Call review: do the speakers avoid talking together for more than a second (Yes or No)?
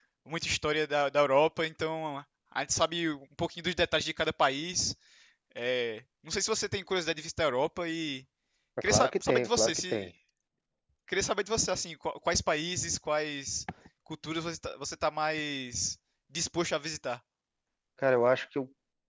No